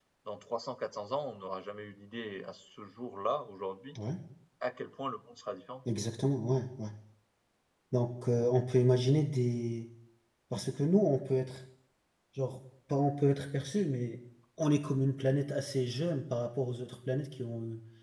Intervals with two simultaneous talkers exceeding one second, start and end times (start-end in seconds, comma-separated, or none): none